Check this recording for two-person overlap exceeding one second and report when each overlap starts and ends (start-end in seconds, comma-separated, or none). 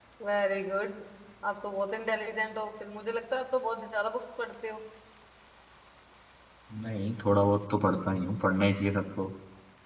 none